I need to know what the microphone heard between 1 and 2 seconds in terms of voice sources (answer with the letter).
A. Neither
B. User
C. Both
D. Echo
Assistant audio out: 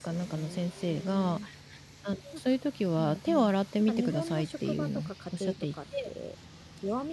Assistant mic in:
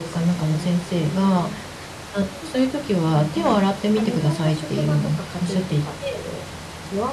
D